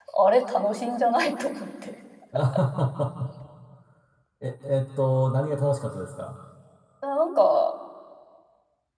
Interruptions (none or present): none